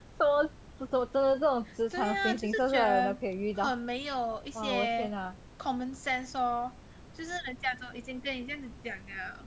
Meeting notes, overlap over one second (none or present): present